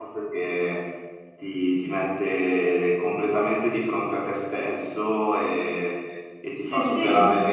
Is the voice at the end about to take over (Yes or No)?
No